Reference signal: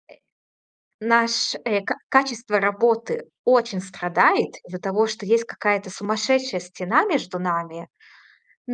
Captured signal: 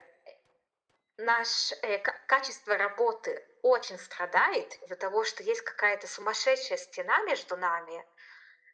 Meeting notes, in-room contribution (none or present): none